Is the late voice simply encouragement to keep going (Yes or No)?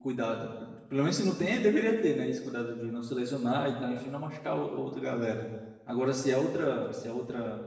Yes